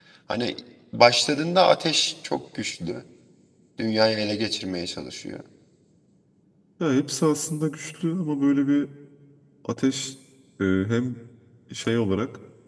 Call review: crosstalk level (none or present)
none